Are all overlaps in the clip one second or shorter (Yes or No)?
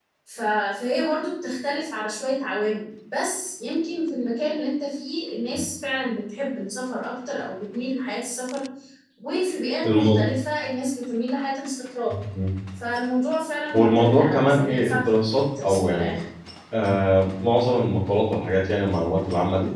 No